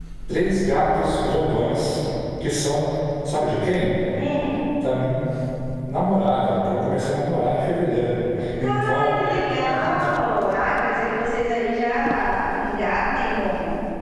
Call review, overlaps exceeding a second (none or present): none